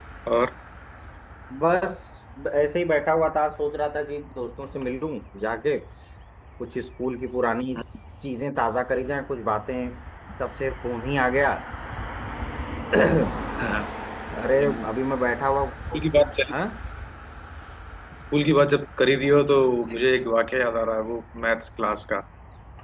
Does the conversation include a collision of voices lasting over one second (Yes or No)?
No